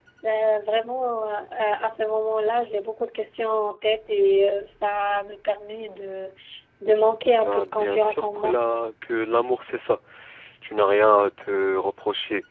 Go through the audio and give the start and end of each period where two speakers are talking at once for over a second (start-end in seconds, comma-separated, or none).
7.2-8.5